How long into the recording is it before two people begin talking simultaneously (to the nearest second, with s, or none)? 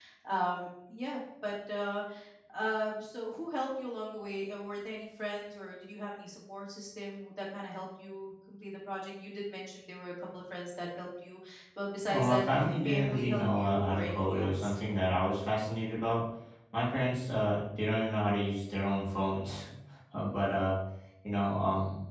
12 s